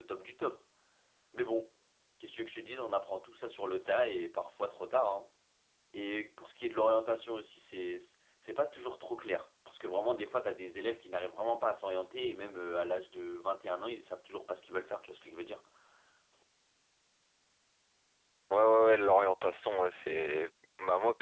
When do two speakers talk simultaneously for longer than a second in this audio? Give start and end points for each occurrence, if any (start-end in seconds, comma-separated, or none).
none